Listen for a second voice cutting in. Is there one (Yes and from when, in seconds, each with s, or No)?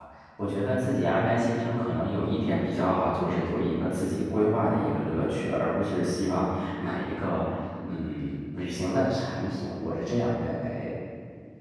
No